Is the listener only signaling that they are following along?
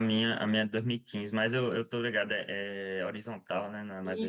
No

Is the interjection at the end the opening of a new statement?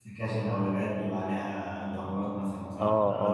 Yes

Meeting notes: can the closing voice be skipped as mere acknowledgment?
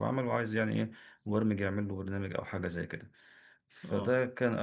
Yes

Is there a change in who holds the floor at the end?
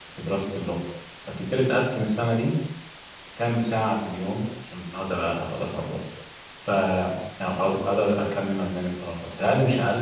No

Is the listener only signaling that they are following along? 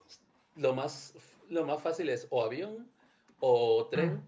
Yes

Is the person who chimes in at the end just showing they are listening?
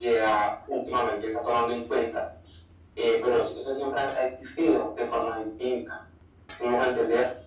Yes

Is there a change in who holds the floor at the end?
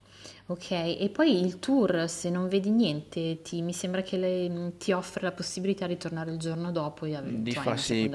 Yes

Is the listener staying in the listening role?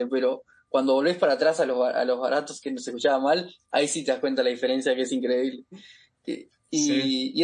Yes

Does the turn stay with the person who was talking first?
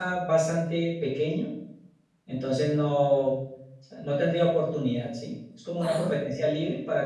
Yes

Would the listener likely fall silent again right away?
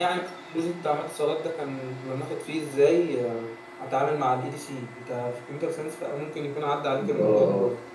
No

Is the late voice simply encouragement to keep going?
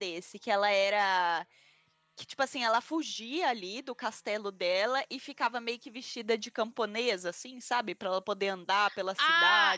No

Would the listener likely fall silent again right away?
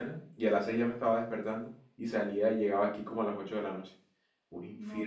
No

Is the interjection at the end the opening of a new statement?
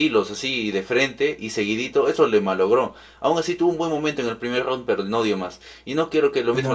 No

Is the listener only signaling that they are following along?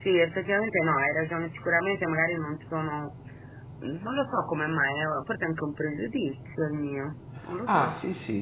No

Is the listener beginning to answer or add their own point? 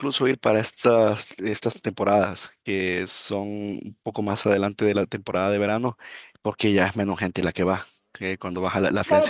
Yes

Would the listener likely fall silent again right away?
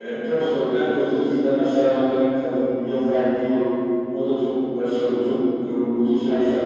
Yes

